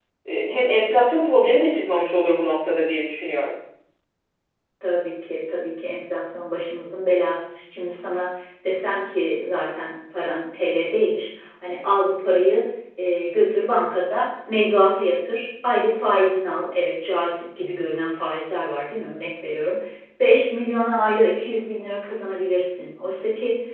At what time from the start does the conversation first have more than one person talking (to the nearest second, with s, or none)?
none